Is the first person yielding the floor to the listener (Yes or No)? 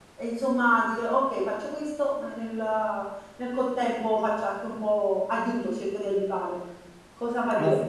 Yes